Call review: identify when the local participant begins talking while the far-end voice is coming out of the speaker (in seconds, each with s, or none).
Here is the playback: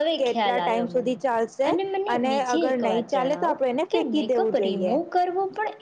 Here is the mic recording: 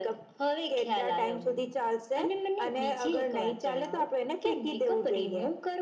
none